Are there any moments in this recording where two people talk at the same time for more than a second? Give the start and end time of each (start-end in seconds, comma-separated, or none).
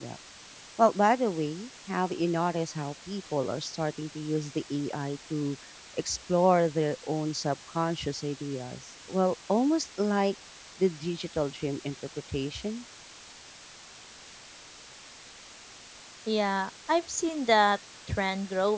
none